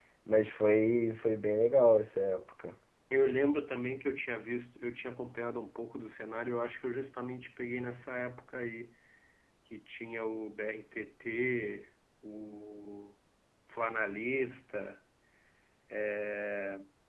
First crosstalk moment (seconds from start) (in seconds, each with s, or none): none